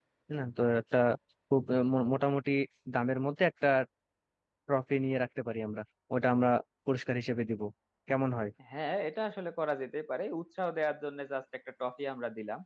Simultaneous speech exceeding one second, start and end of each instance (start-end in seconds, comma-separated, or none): none